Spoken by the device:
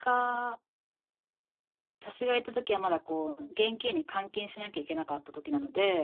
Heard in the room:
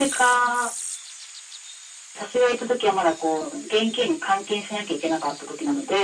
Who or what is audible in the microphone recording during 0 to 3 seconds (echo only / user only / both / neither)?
echo only